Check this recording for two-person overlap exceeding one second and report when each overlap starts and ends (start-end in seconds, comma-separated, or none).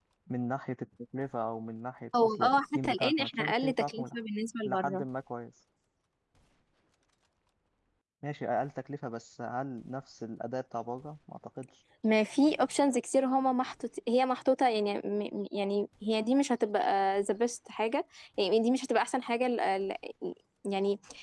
2.2-4.2